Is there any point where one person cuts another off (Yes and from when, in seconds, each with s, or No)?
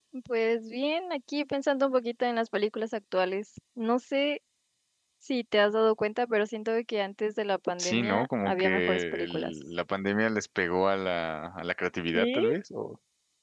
Yes, from 7.8 s